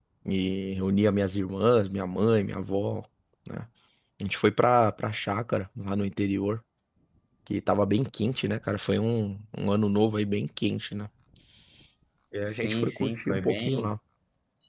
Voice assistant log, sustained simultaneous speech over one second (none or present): present